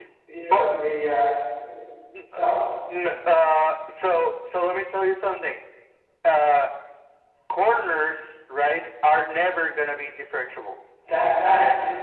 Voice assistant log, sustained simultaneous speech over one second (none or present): none